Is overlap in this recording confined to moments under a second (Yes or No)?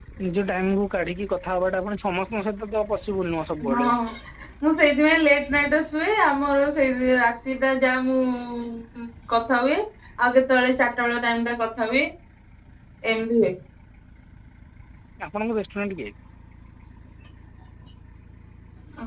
Yes